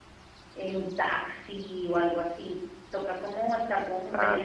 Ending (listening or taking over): listening